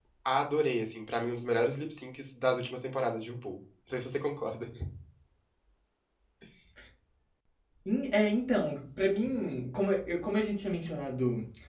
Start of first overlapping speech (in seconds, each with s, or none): none